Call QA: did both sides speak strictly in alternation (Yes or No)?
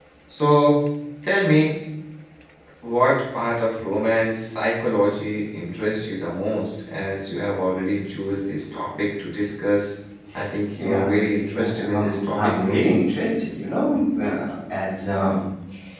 No